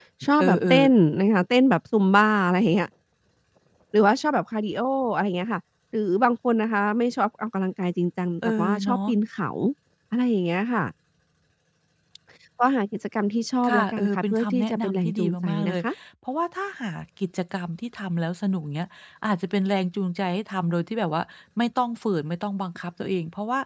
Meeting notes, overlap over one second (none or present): present